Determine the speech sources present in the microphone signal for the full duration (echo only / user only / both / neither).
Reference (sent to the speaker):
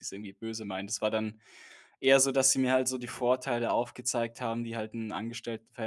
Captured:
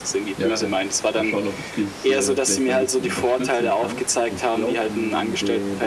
both